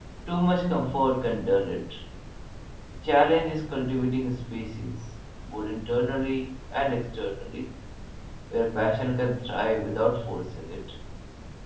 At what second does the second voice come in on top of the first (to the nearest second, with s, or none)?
none